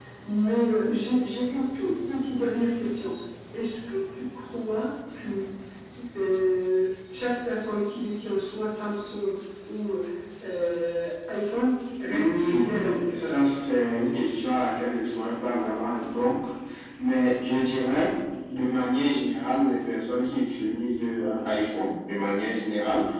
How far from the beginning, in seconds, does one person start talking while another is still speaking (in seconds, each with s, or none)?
12.1 s